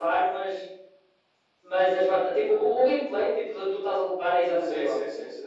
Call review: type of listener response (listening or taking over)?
taking over